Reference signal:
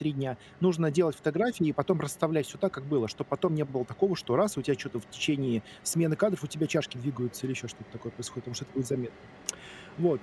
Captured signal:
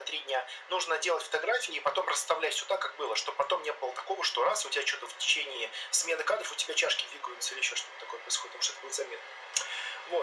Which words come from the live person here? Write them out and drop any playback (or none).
none